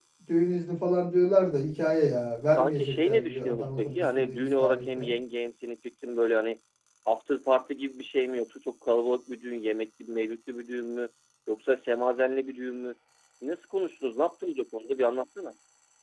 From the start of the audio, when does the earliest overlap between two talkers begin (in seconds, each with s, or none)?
2.5 s